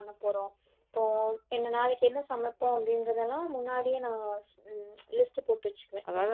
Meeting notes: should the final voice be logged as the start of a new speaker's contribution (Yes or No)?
Yes